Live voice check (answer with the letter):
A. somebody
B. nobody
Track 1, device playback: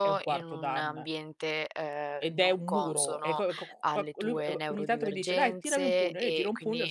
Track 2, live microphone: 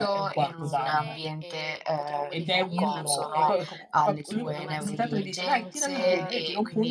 A